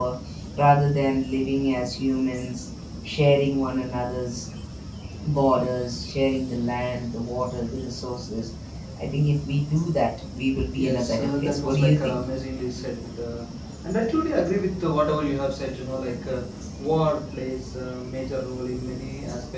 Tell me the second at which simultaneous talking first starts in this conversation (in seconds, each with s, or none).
10.8 s